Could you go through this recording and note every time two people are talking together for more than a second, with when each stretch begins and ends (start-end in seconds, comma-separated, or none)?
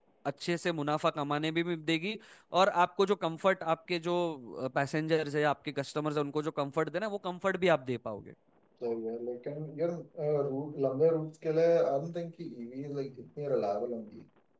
none